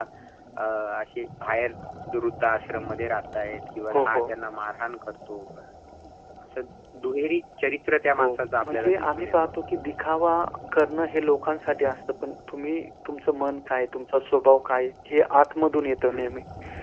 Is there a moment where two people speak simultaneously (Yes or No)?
Yes